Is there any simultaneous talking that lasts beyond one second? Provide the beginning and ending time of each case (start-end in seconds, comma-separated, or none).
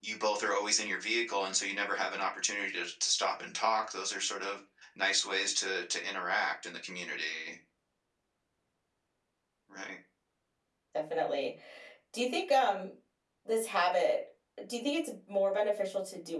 none